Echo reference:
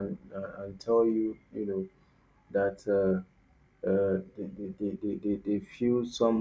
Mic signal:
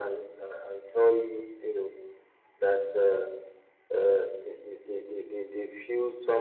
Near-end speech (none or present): none